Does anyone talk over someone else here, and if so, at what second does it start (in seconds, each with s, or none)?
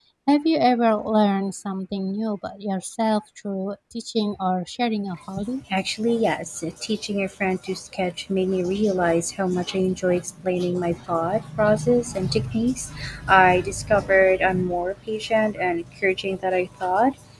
none